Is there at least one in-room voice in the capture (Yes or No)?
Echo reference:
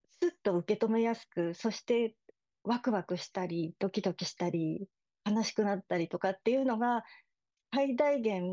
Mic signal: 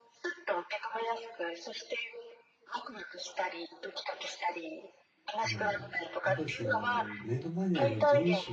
Yes